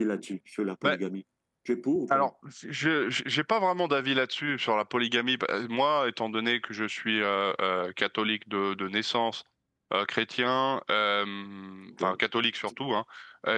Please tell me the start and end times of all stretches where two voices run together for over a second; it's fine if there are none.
none

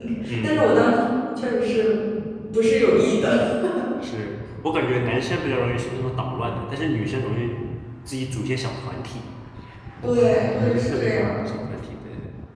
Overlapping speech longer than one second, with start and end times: 10.0-11.5

